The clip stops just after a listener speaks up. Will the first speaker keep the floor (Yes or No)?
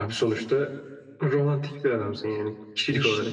No